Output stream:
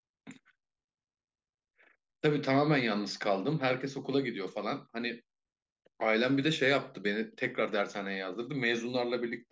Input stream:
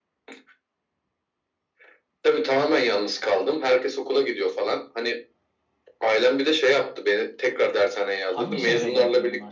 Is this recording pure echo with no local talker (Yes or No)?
No